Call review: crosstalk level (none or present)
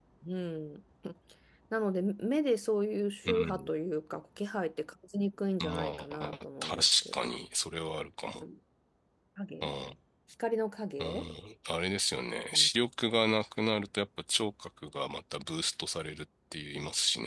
present